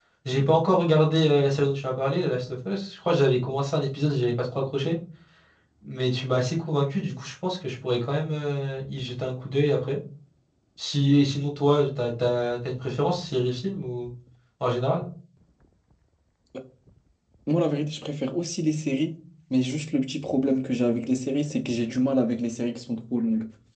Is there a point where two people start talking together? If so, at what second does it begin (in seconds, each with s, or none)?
none